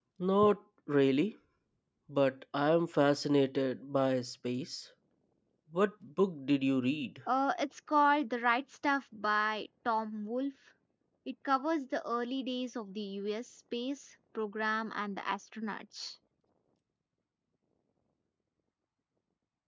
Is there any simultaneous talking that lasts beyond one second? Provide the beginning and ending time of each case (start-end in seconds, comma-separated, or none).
none